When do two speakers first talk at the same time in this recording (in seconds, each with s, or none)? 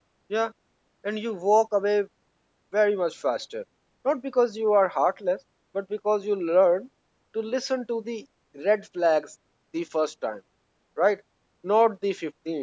none